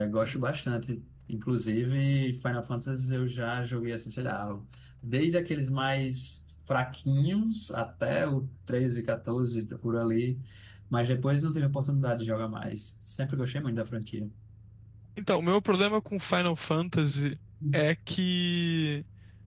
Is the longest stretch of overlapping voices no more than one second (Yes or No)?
Yes